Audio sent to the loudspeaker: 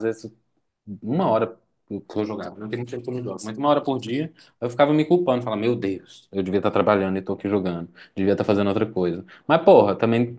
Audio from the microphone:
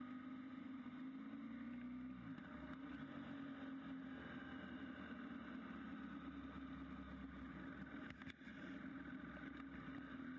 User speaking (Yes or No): No